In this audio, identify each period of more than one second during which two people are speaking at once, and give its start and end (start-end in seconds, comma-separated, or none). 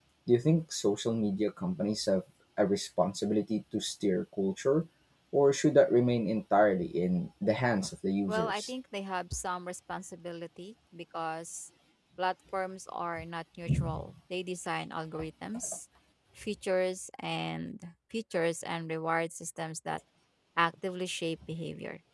none